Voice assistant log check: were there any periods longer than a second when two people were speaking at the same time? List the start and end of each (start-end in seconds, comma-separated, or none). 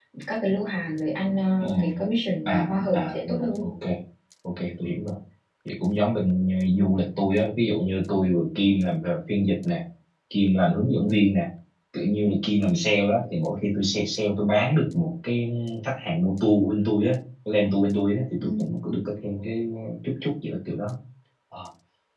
2.5-3.7